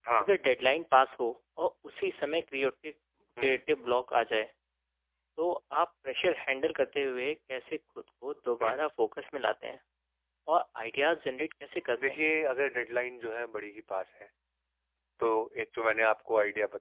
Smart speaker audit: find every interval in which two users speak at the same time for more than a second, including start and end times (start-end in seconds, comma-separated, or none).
none